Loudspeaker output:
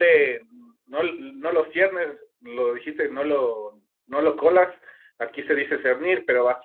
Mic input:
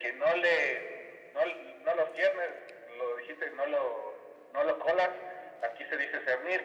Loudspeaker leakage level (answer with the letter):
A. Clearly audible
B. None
A